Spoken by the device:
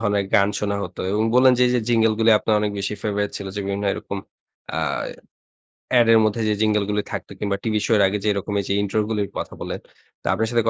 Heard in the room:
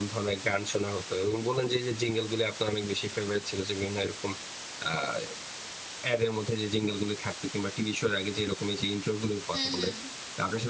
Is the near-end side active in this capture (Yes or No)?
Yes